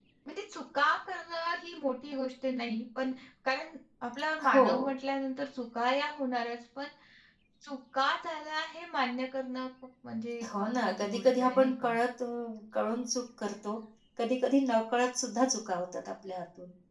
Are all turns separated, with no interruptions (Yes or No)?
No